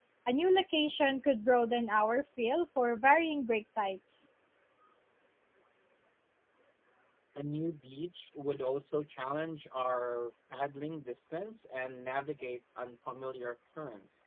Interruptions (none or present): none